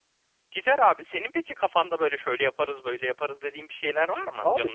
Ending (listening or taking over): taking over